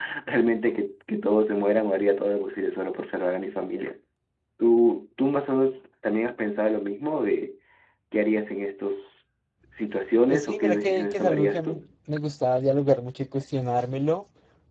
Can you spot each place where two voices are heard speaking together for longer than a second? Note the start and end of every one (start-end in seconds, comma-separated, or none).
10.3-11.8